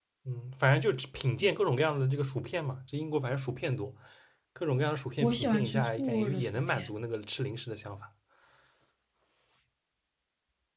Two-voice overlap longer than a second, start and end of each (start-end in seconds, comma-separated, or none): 5.2-6.9